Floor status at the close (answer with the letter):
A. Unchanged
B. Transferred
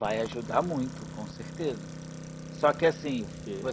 A